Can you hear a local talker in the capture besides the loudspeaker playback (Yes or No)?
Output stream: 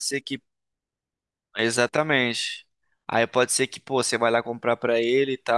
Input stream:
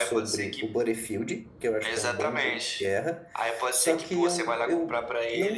Yes